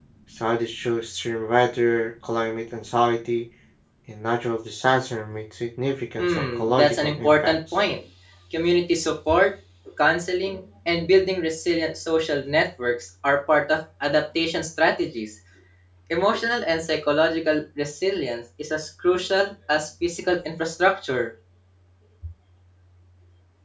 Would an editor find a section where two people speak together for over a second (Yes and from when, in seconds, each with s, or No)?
Yes, from 6.2 s